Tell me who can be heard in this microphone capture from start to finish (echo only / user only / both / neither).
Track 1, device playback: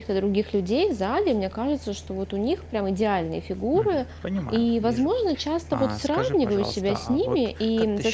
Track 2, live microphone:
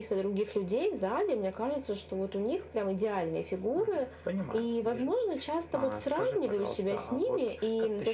echo only